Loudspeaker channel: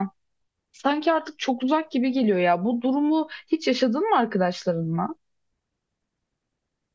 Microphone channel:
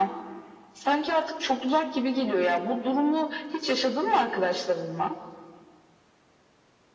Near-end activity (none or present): none